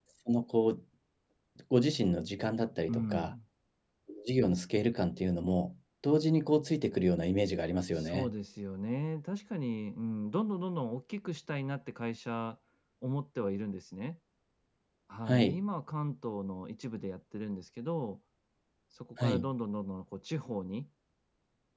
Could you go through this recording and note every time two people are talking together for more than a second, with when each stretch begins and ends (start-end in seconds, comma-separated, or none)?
none